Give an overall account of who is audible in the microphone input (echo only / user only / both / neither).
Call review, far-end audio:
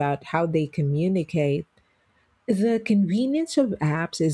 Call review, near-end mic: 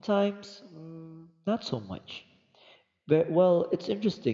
user only